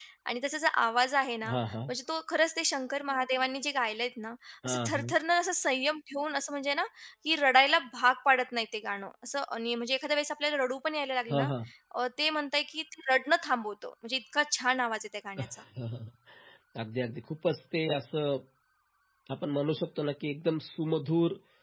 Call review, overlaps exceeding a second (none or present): none